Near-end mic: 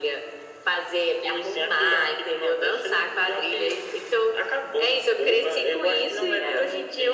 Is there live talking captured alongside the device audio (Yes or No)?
No